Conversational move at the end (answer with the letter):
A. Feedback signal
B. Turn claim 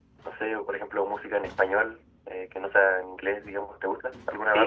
B